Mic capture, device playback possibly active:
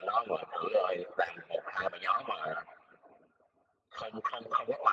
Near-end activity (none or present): none